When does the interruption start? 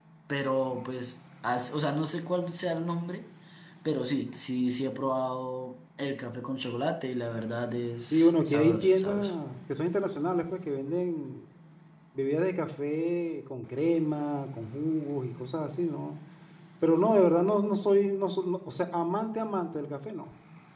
8.1 s

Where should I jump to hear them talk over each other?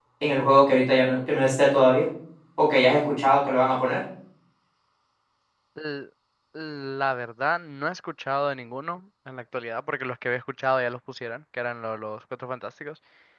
none

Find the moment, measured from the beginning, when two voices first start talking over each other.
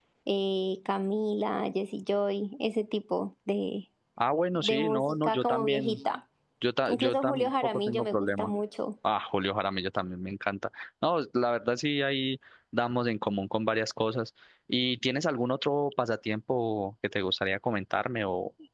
4.6 s

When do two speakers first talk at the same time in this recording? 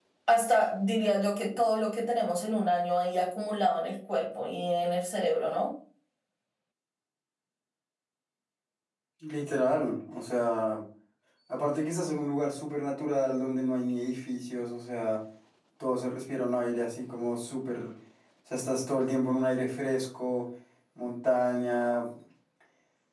none

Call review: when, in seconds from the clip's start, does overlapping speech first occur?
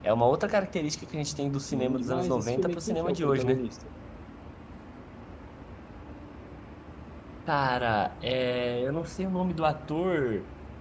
1.6 s

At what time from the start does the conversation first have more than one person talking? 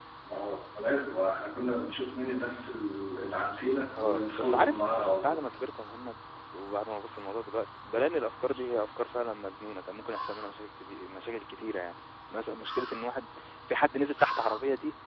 4.0 s

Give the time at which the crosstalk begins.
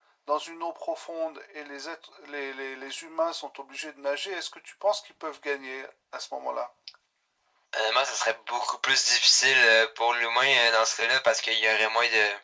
none

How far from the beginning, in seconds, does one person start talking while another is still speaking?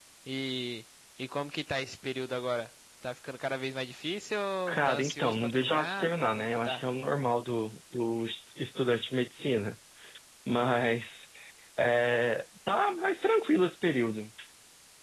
4.9 s

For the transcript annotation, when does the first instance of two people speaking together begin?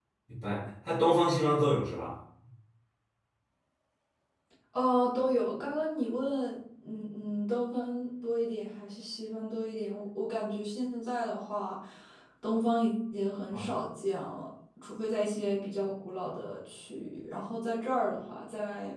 none

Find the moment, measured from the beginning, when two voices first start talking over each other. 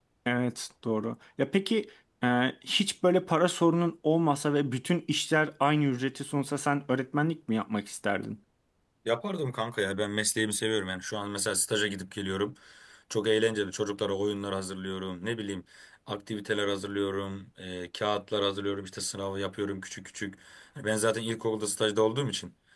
none

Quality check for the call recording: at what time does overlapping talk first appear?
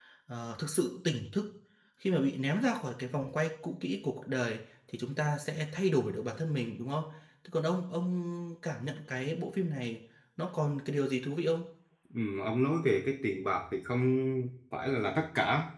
none

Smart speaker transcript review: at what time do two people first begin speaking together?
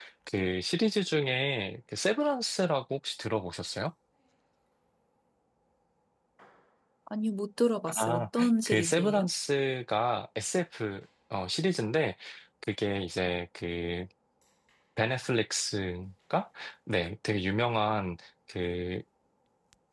7.9 s

